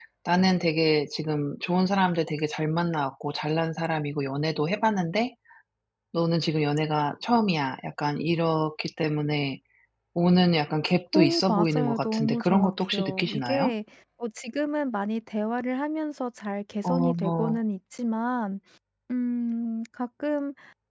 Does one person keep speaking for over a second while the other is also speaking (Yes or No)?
Yes